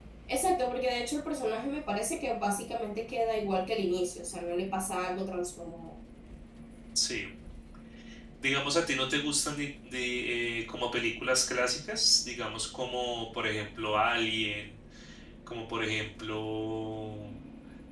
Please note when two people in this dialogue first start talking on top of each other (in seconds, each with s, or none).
none